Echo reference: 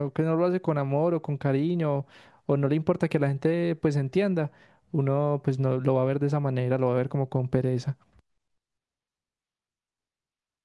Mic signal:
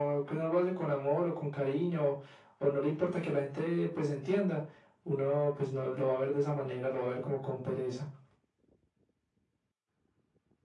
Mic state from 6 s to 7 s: echo only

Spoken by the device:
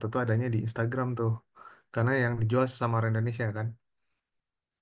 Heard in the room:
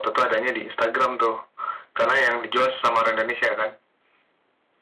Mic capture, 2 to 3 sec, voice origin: echo only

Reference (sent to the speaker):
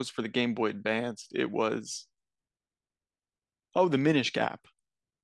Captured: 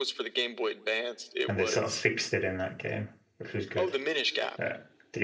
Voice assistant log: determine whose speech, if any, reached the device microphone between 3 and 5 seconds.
both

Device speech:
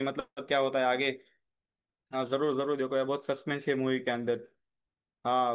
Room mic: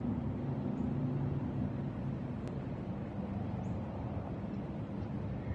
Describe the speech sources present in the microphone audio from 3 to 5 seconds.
neither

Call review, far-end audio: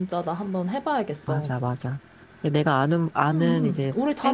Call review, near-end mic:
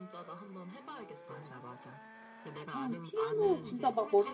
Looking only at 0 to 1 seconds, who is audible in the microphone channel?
echo only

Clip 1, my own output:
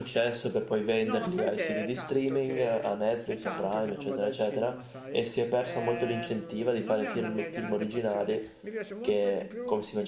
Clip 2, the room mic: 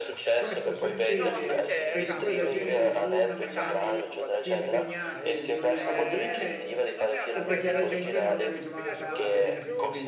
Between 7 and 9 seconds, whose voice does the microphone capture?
both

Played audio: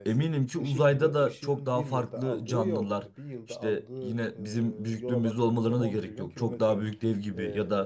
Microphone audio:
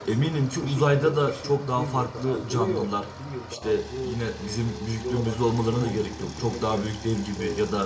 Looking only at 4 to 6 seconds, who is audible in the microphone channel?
echo only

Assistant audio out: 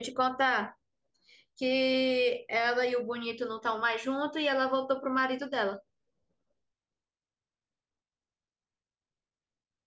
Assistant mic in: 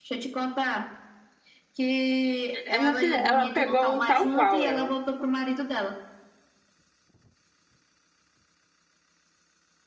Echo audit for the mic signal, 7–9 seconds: neither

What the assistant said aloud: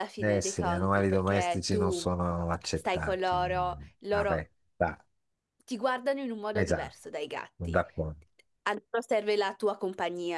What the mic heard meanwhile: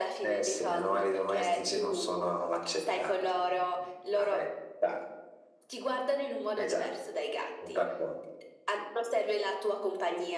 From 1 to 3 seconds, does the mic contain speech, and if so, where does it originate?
echo only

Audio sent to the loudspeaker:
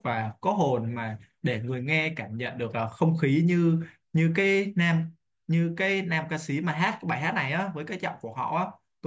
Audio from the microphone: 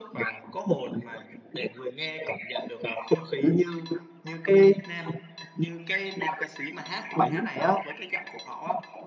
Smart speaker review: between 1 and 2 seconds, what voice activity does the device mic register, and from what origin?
echo only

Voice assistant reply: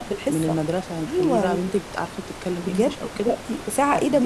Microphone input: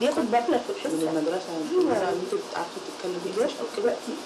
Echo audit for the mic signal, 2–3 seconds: echo only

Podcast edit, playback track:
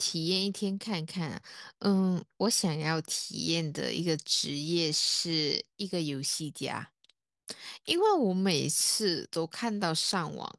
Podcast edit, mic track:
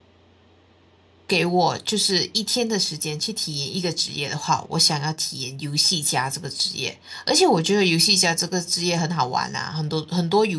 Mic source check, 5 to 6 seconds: user only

